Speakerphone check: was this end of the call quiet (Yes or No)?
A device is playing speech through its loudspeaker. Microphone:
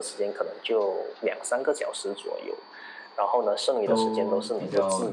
No